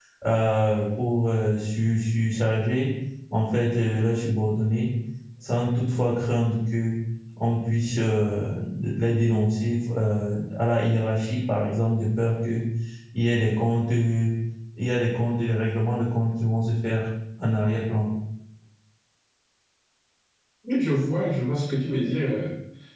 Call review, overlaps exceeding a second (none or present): none